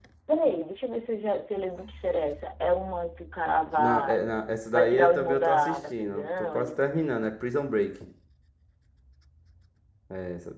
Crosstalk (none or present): present